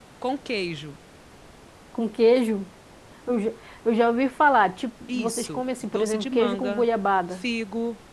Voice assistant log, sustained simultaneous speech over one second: present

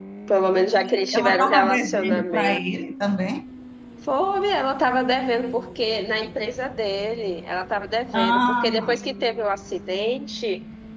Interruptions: present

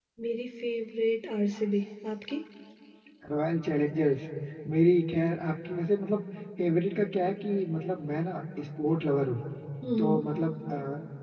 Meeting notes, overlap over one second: none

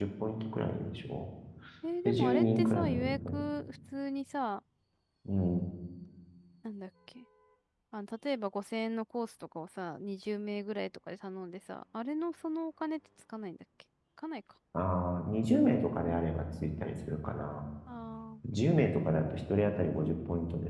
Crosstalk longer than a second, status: present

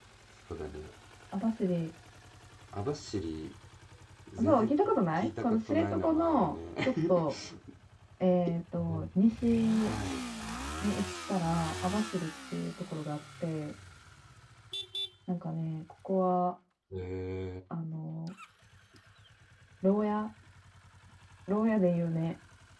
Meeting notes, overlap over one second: present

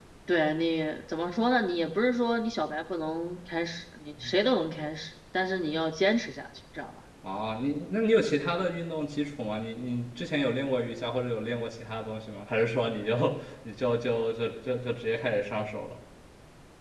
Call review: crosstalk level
none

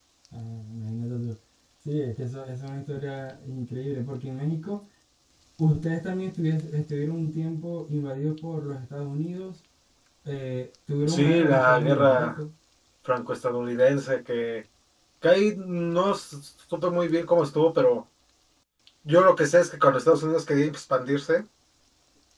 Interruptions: present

